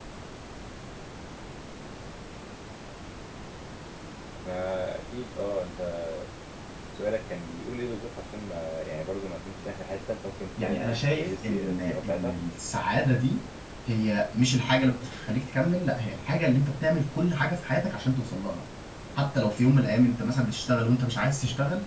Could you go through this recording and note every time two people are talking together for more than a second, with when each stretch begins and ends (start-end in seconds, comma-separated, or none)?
10.6-12.3